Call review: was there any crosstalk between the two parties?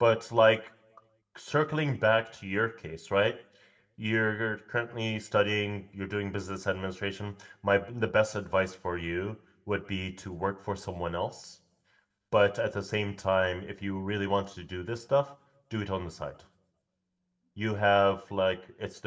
No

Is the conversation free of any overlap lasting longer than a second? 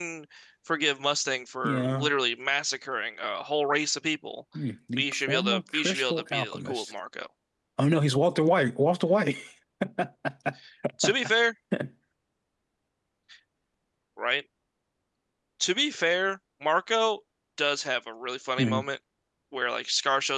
No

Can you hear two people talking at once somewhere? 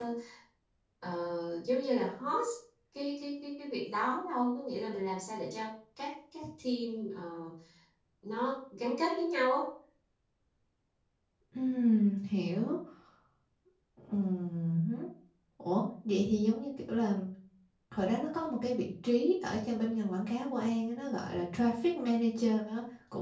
No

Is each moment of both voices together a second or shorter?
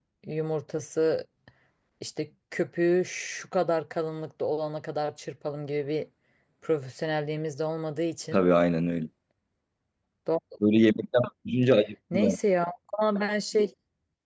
Yes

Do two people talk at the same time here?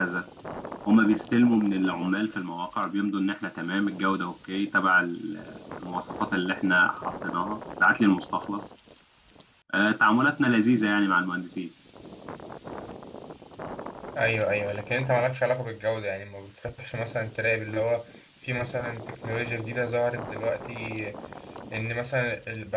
No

